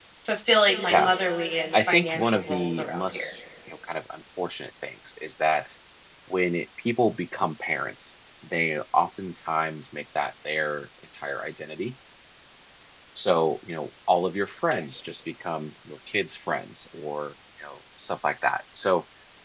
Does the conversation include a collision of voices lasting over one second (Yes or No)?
Yes